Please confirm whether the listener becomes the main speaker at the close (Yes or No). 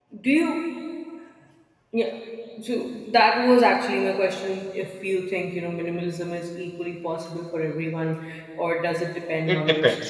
Yes